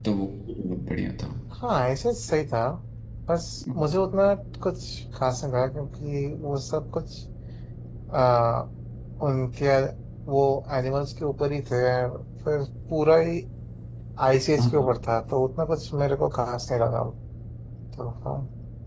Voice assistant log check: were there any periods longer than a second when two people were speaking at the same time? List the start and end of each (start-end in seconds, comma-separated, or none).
none